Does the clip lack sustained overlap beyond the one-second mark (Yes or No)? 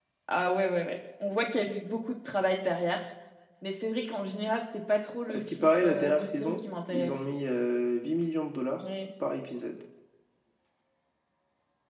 No